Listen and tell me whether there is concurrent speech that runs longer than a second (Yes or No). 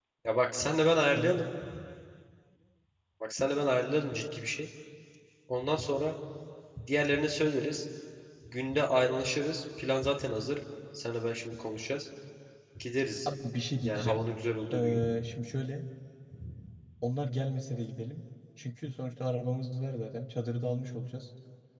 No